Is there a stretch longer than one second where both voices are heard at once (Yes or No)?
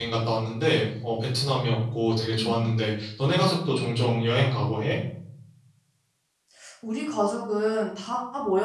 No